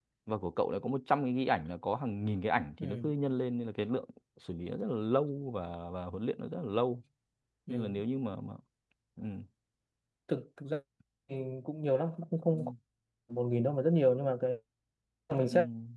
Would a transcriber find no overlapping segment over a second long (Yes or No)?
Yes